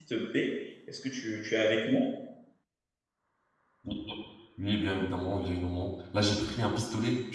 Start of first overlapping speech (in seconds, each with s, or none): none